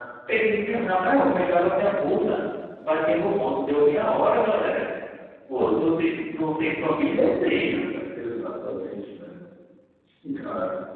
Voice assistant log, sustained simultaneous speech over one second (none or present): none